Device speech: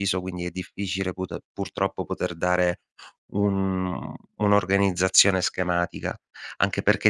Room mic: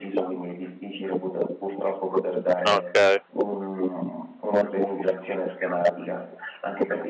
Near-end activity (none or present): present